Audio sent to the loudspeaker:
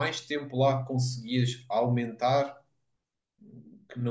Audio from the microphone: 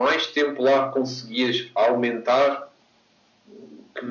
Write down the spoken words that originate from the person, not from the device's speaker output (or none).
none